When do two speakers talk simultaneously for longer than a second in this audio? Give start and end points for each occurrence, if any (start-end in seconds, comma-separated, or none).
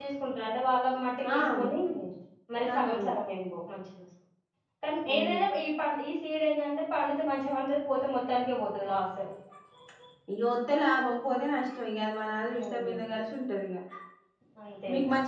none